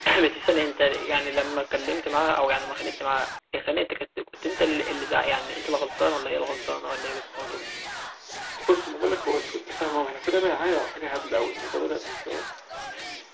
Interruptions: none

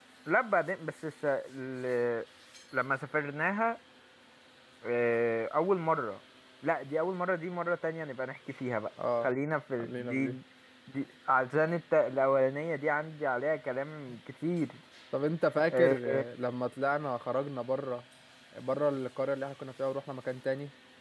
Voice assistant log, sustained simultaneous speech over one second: none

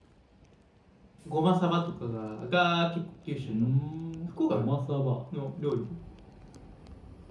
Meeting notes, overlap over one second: none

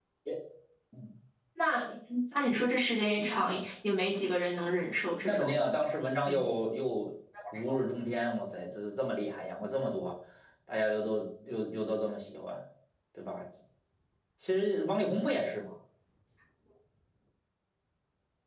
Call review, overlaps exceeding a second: none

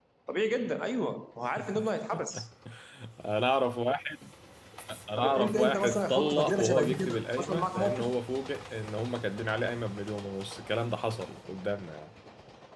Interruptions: present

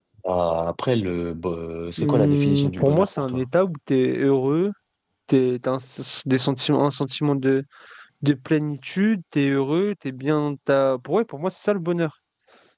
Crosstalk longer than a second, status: present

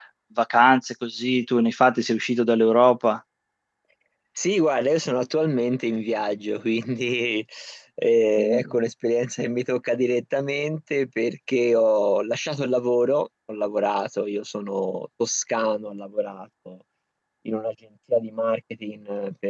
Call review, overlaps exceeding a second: none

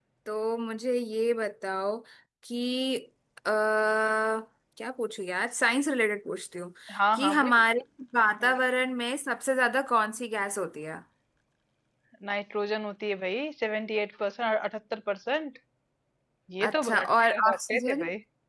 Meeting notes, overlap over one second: present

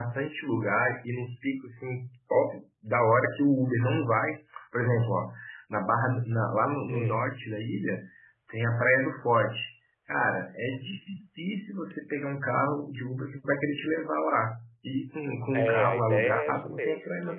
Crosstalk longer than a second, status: present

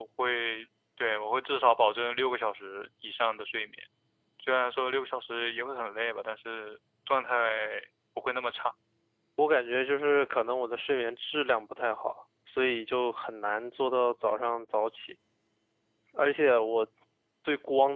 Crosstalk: none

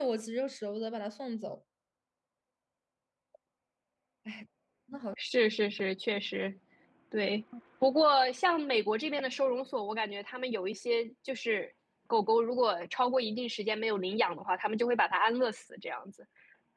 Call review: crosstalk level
none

